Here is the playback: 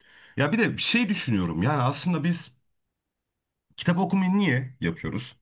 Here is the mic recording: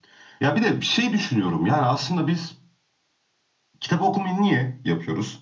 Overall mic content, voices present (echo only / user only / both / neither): echo only